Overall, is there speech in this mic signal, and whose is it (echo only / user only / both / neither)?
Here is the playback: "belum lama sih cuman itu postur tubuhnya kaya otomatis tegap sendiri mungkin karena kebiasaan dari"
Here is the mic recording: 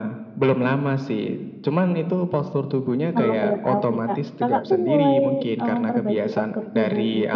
both